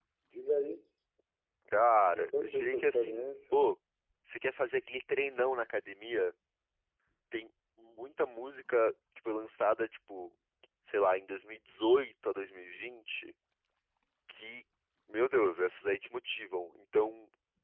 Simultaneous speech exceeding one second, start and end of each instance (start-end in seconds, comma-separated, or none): 2.1-3.3